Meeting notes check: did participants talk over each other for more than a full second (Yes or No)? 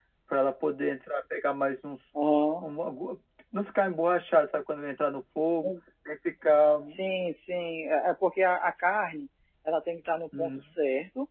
No